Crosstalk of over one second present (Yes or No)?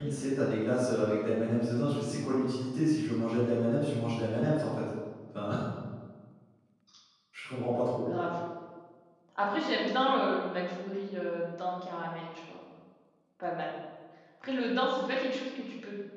No